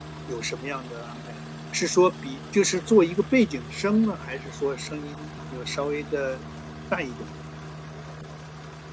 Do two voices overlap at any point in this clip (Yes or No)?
No